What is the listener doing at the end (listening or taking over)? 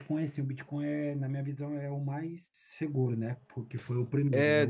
taking over